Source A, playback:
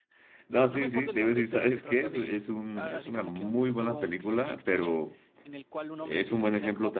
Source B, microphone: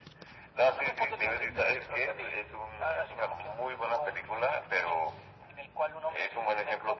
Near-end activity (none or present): none